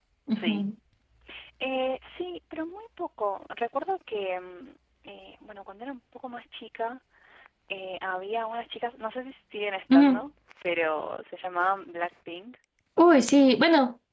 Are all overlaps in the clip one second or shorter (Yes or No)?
Yes